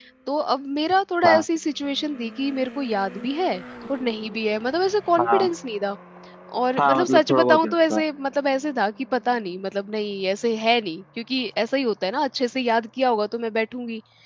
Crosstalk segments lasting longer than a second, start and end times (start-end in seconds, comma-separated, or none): 6.8-8.0